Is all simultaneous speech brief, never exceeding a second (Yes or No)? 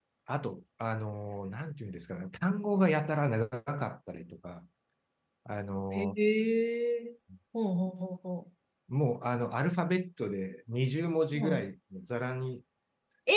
Yes